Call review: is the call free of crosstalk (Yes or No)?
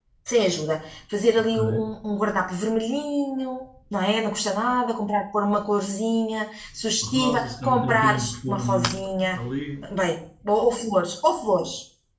No